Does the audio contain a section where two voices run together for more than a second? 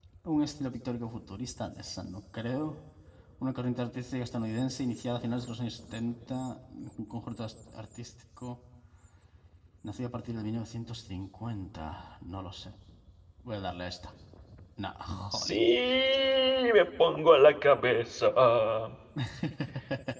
No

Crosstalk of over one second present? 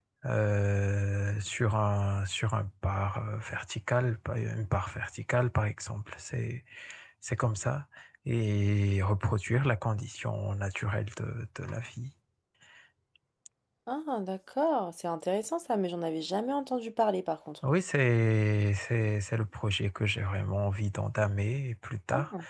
No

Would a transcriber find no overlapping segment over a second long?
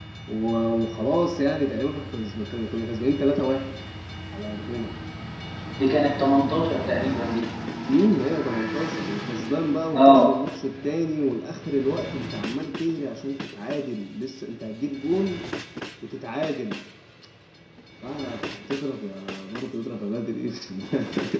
Yes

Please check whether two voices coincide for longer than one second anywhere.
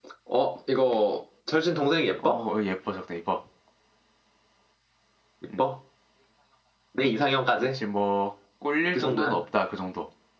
No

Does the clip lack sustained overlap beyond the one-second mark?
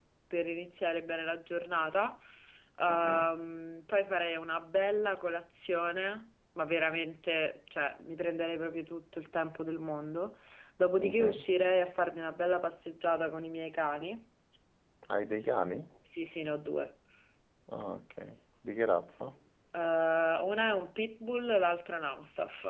Yes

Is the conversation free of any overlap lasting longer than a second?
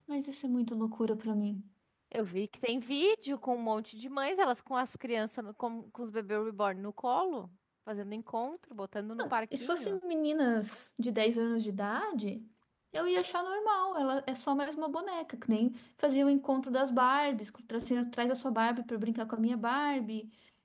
Yes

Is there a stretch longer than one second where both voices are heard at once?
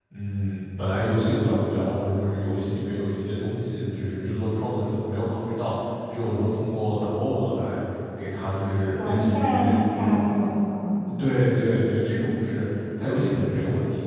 Yes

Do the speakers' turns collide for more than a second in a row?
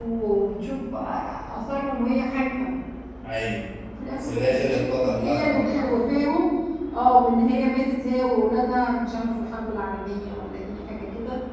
Yes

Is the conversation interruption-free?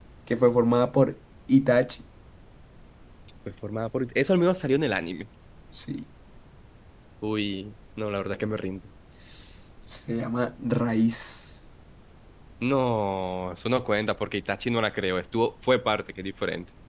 Yes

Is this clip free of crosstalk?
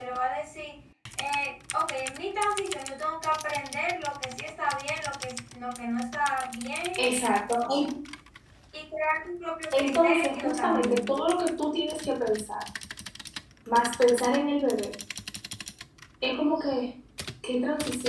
No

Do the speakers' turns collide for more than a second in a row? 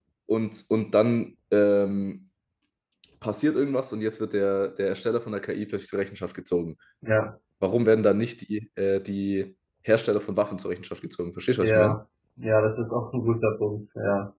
No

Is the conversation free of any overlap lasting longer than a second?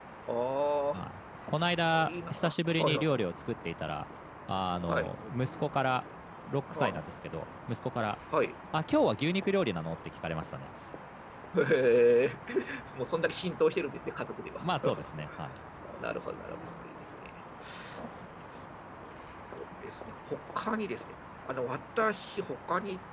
No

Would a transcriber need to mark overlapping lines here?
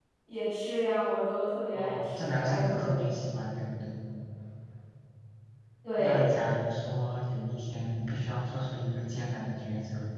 Yes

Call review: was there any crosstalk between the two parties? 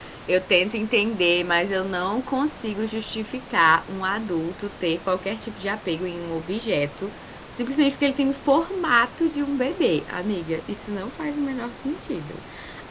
No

